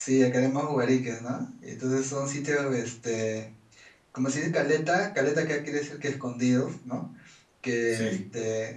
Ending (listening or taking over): listening